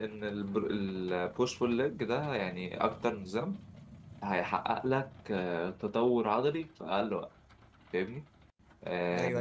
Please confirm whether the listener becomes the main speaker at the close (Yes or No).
Yes